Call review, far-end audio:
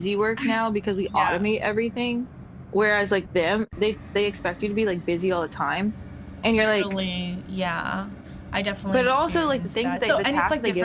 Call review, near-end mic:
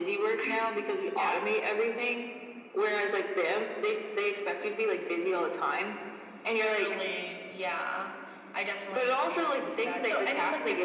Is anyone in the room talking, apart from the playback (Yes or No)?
No